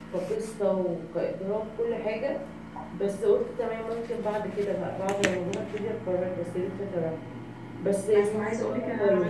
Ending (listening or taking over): taking over